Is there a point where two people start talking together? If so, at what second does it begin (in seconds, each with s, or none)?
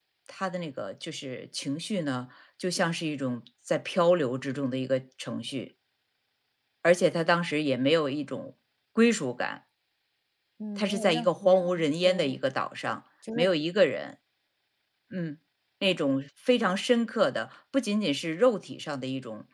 10.8 s